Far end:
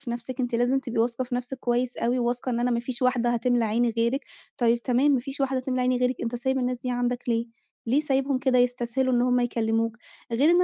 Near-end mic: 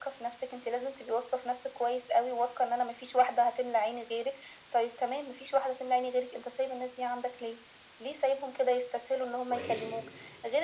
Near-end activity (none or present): present